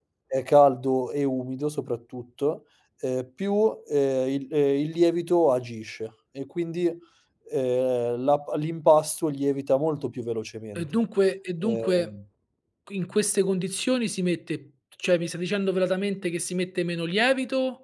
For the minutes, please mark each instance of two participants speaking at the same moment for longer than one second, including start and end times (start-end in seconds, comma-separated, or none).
none